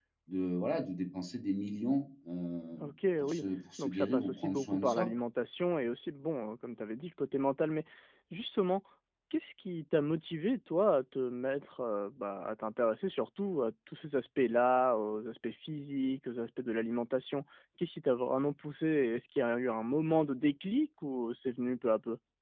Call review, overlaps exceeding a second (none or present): present